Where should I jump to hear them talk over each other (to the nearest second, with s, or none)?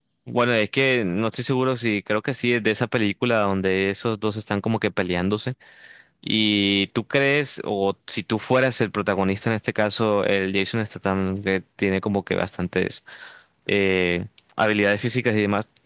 none